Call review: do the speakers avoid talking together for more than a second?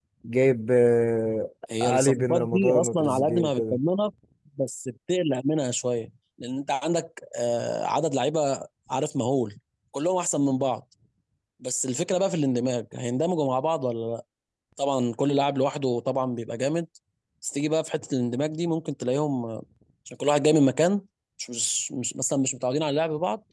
No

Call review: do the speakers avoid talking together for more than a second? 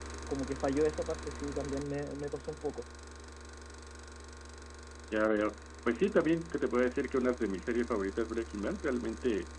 Yes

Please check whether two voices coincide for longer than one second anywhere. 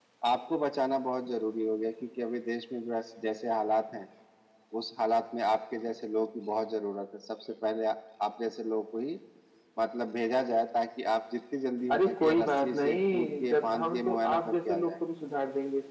Yes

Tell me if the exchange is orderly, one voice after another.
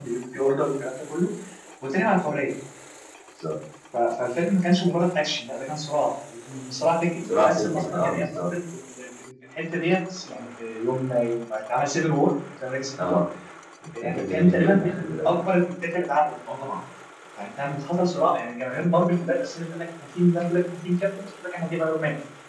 No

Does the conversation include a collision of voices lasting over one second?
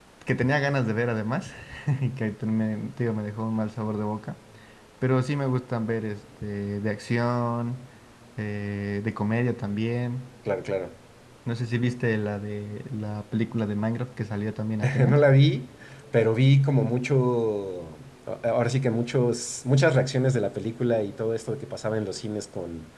No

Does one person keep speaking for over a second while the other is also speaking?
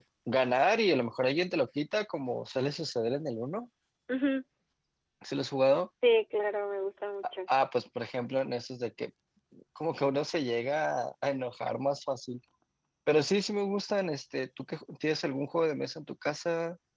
No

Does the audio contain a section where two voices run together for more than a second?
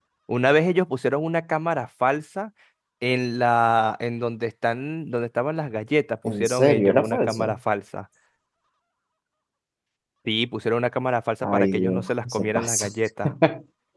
Yes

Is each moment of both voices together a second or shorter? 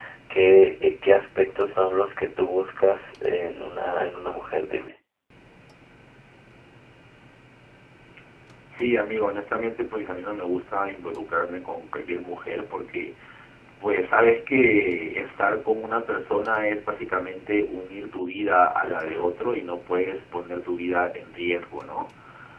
Yes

